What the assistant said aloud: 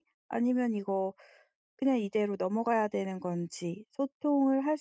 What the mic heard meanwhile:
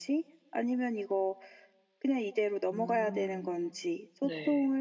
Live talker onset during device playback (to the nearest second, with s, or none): 3 s